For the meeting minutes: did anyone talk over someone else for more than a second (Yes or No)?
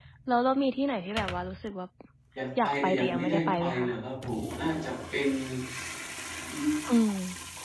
Yes